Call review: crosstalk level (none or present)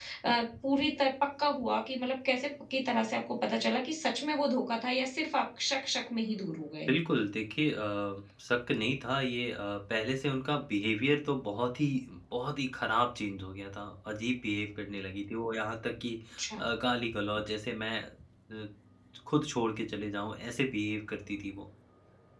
none